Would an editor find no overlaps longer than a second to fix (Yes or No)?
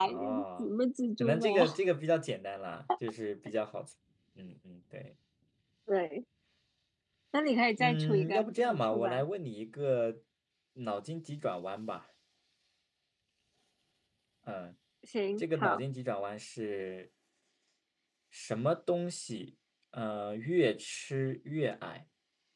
No